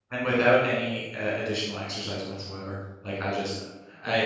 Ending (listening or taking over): listening